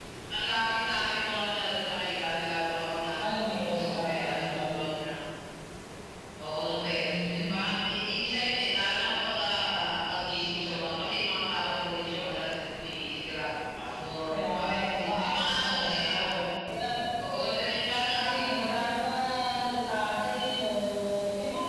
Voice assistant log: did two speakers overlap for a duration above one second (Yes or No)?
Yes